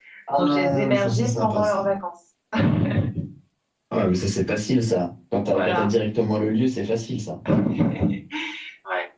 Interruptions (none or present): present